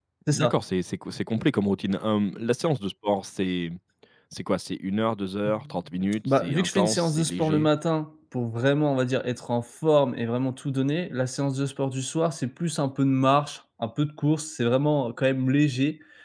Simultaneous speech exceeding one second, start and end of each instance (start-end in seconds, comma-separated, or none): 6.4-7.7